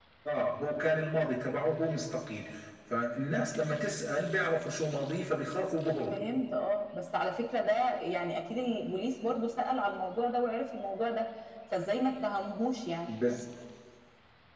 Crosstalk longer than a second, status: none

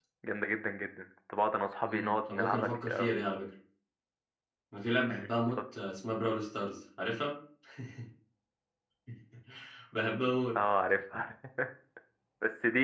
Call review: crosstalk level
present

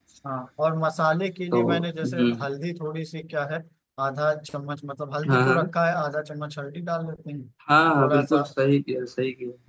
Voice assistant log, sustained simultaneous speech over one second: none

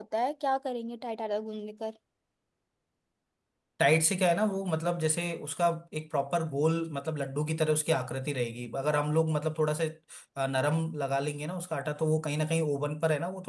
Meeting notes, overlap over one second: none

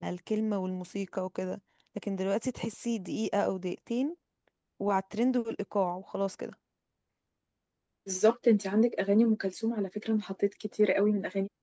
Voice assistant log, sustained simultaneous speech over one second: none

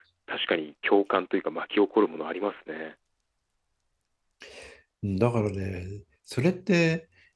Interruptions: none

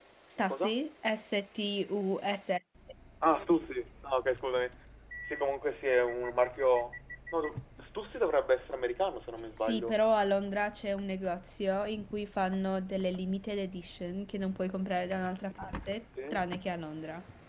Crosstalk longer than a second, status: none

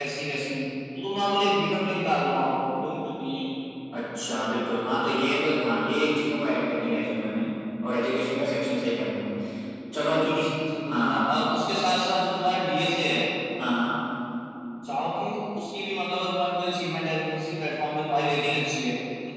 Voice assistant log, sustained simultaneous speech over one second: none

